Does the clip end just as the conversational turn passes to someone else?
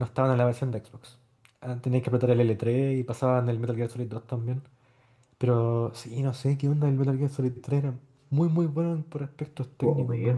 Yes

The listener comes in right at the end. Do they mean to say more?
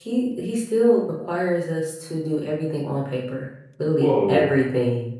Yes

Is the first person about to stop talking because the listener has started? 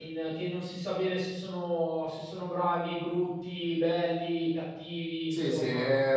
Yes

